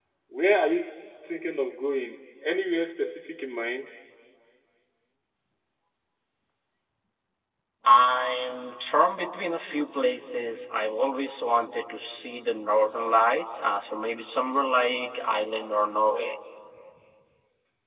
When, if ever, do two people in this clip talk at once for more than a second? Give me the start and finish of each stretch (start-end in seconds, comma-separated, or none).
none